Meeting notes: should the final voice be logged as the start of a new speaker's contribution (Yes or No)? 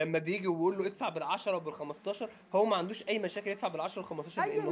Yes